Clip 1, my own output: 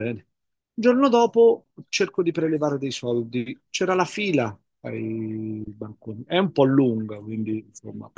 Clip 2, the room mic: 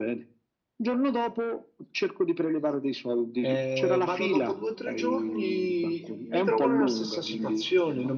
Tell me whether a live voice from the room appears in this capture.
Yes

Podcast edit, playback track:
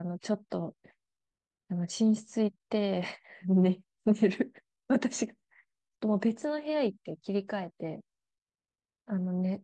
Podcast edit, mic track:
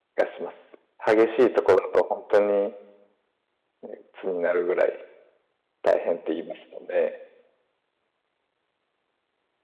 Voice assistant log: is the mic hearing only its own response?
No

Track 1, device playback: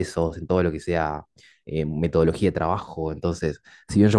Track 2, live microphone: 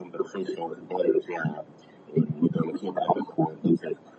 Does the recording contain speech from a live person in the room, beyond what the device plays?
No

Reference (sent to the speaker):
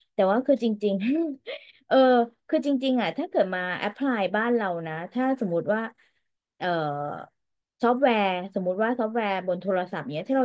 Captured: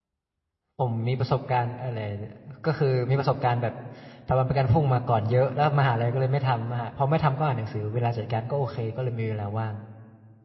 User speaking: Yes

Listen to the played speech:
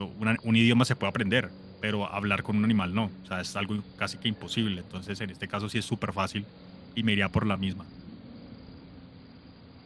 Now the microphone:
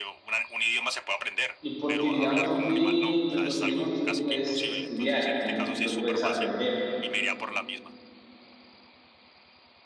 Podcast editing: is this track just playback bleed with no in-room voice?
No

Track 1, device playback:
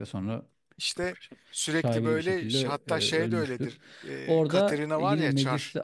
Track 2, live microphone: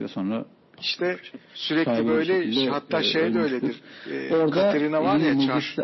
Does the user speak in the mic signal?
No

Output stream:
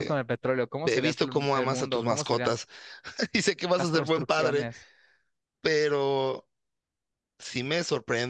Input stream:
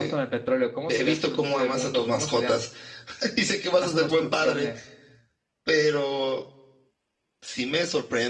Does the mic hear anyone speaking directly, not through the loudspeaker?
No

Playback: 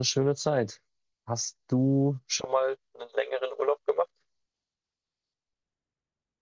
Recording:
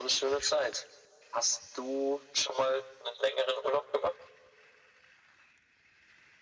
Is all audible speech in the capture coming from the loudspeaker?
Yes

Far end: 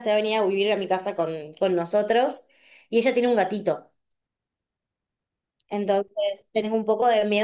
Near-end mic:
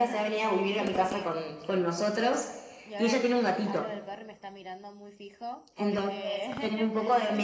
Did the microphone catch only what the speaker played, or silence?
No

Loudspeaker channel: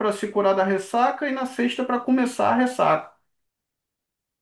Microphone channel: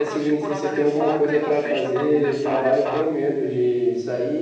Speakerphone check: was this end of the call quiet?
No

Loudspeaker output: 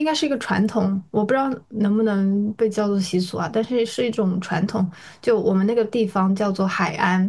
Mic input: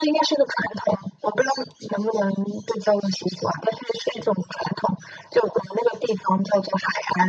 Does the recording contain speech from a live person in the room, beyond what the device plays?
No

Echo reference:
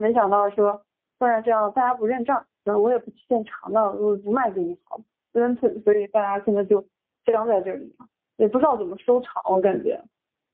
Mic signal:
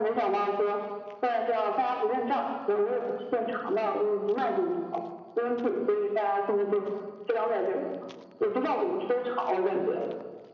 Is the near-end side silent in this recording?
Yes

